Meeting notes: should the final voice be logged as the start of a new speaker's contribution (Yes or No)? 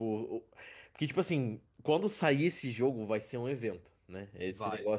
No